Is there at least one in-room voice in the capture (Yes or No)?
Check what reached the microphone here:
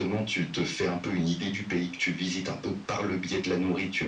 No